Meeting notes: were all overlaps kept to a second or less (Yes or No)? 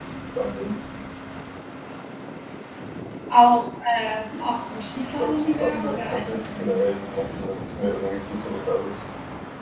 No